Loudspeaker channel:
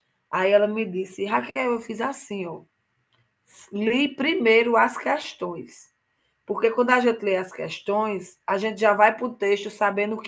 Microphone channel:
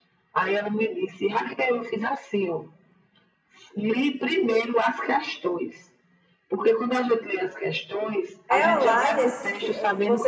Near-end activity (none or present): present